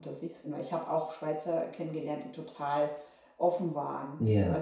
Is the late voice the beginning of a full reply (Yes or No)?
No